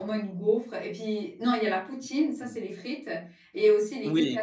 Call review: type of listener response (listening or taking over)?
taking over